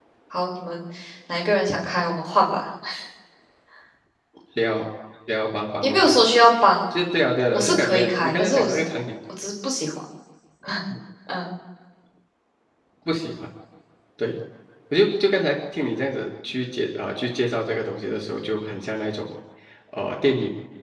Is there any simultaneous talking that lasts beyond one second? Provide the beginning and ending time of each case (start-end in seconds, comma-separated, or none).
7.5-8.8